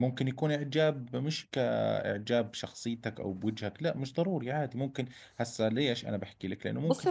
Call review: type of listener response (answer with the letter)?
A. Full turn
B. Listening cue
A